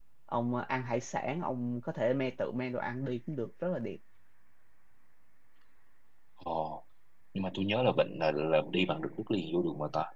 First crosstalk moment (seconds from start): none

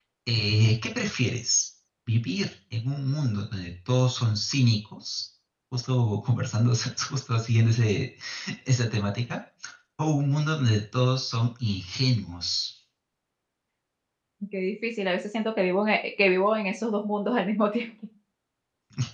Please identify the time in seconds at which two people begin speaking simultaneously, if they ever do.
none

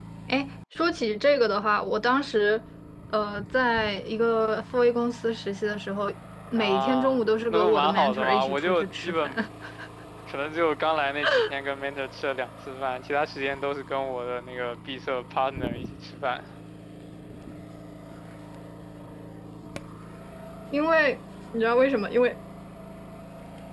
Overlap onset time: 6.6 s

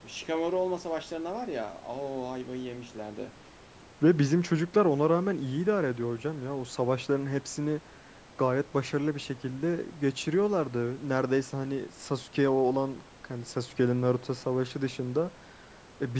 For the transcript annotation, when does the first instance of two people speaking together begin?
none

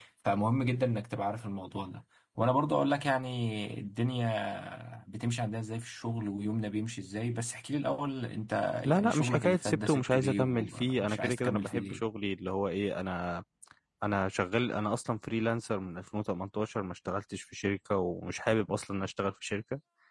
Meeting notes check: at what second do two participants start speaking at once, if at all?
8.8 s

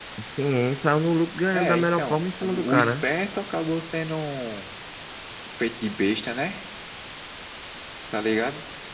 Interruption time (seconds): 1.5 s

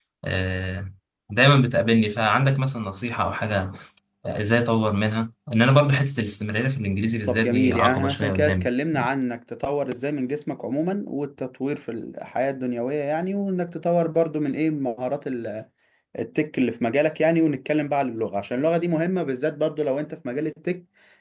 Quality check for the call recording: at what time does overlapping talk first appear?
7.3 s

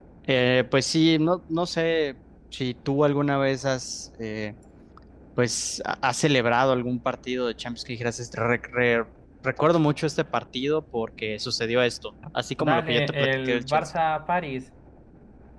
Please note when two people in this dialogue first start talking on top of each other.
12.6 s

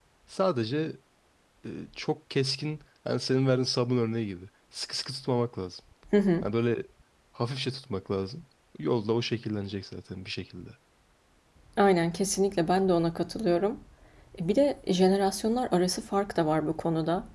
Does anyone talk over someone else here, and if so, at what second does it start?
none

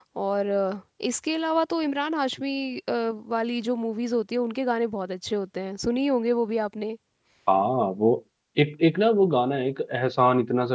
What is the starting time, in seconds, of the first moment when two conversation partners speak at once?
none

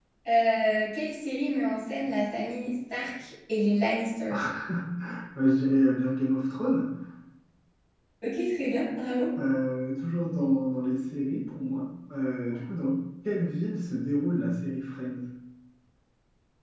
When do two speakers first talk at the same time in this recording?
none

